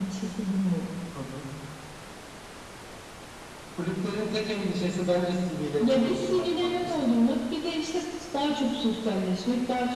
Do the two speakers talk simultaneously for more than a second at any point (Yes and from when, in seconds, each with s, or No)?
Yes, from 5.8 s